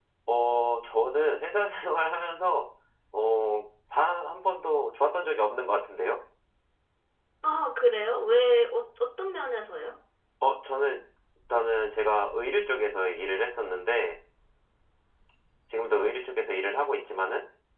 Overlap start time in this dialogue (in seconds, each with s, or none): none